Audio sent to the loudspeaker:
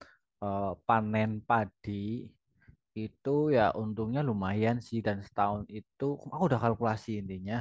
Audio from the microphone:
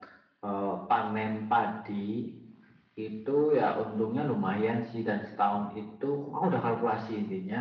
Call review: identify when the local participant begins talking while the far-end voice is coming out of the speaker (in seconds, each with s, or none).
none